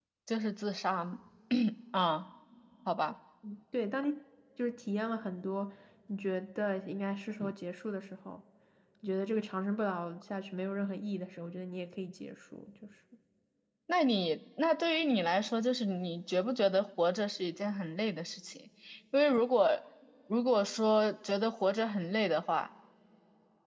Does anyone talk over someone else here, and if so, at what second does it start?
none

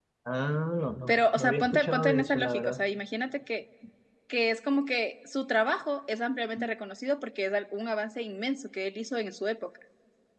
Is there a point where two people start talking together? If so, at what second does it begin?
1.1 s

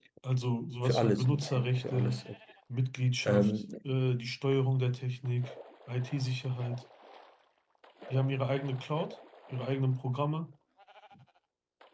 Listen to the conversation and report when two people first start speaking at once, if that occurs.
0.8 s

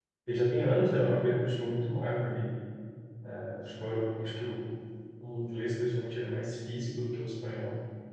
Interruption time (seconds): none

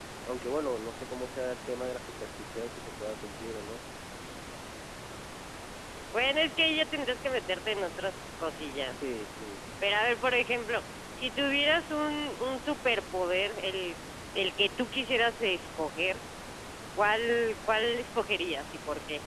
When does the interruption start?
none

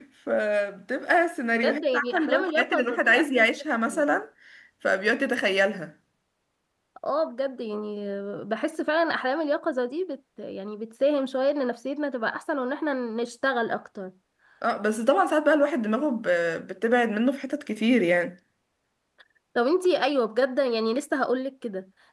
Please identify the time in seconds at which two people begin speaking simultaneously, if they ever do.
1.5 s

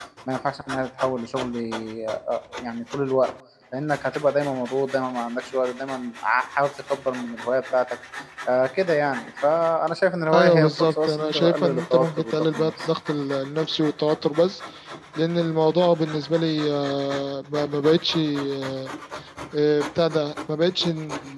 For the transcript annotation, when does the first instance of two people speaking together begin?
10.3 s

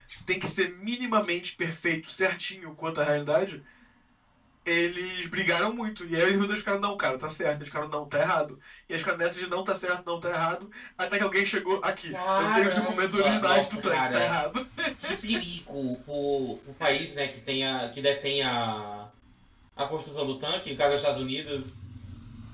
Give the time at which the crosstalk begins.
12.1 s

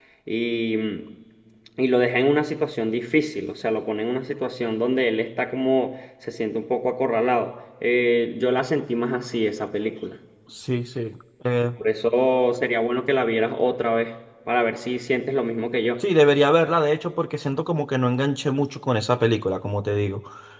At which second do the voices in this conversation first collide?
none

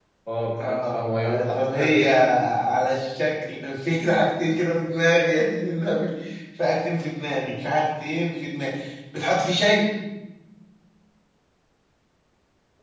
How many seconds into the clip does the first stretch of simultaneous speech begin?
0.6 s

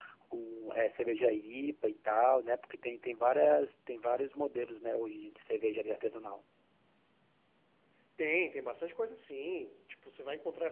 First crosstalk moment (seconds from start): none

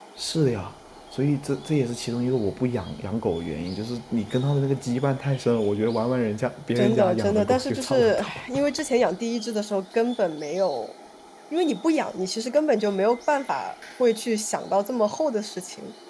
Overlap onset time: 6.8 s

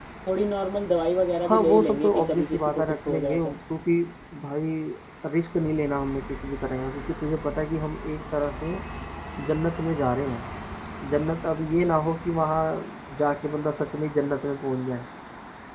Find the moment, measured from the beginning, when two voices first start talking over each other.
1.4 s

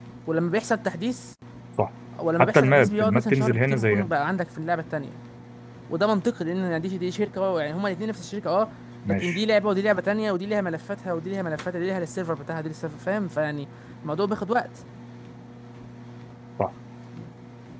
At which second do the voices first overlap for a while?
2.4 s

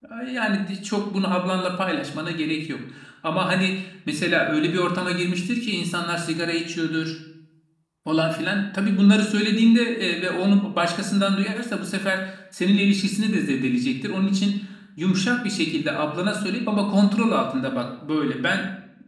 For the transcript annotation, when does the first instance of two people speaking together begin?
none

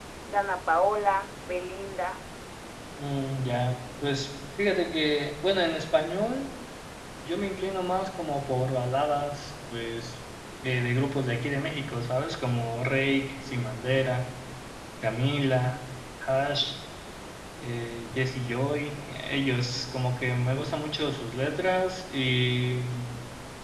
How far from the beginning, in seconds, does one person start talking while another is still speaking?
none

